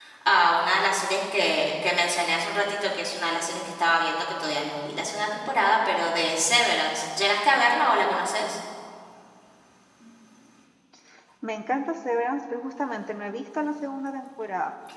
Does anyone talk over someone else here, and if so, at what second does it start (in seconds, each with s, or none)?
none